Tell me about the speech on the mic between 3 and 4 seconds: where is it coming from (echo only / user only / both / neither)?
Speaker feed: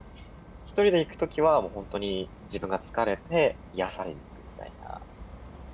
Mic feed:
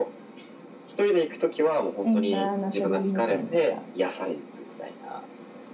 both